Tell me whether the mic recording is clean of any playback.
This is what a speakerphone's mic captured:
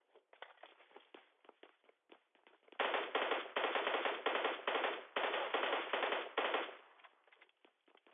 Yes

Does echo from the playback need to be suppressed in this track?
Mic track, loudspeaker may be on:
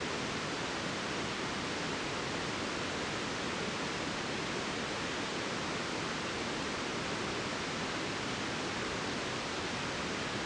No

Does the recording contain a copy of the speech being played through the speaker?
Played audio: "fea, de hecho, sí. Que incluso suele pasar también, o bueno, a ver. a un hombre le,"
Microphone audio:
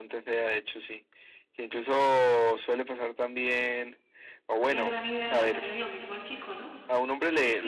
Yes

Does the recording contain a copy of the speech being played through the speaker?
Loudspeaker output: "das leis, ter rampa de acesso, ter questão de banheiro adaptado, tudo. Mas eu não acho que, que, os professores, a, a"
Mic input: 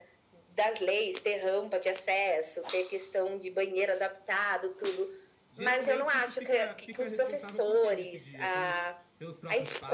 Yes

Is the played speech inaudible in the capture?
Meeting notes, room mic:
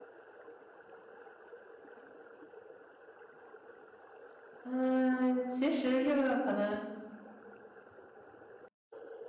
Yes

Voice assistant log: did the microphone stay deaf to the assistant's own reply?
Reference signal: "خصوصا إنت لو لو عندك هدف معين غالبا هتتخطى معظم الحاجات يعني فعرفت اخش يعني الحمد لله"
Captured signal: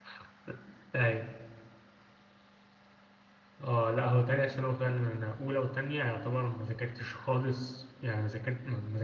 Yes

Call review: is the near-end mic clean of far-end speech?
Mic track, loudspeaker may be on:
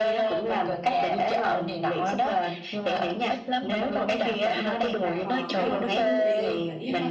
No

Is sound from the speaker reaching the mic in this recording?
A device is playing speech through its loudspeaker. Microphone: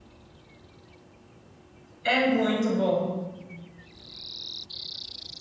No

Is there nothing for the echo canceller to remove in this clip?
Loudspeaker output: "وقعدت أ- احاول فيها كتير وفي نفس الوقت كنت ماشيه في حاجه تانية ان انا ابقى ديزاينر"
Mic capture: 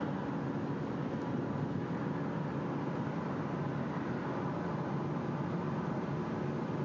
Yes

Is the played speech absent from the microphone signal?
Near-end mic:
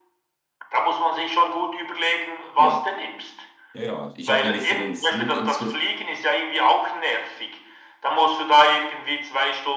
No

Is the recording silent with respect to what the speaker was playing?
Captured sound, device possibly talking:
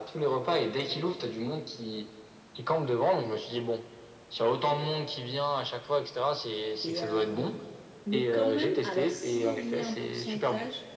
No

